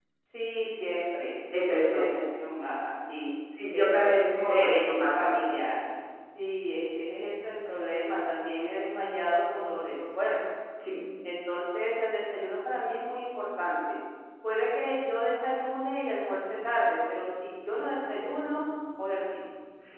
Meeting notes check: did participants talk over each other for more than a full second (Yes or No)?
Yes